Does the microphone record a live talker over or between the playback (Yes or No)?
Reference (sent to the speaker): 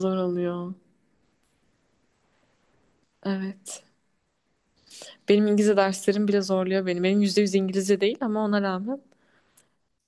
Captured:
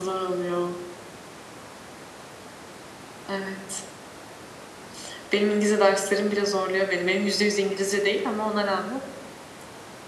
No